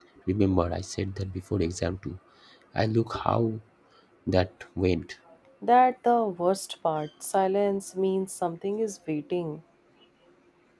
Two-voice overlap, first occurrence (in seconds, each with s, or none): none